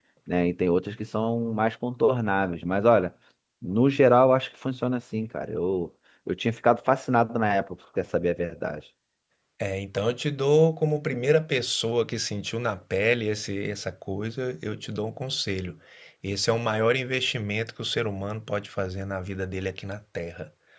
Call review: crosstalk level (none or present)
none